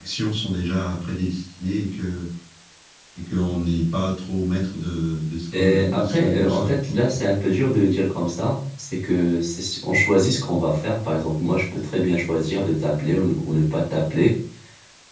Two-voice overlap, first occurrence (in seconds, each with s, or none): 5.5 s